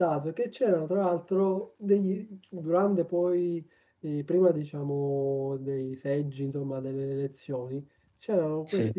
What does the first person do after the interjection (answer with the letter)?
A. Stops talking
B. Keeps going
B